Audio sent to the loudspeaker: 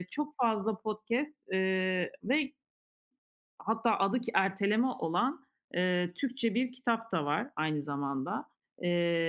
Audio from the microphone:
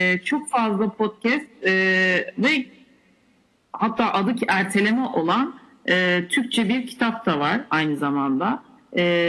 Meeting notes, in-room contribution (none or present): none